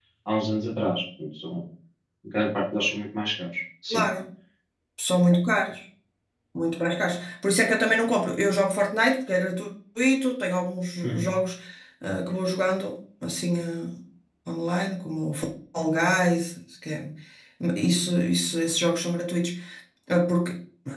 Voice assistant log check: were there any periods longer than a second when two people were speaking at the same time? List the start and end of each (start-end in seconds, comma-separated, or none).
none